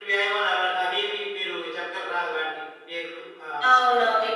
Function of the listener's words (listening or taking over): taking over